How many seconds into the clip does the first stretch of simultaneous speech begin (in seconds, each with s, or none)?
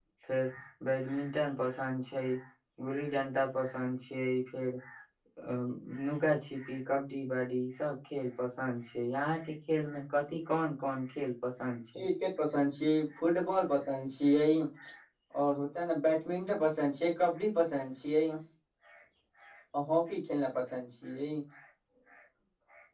none